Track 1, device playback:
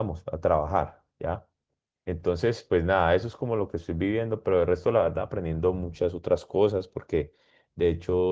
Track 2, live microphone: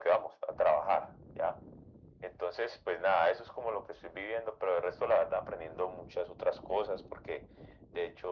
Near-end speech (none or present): none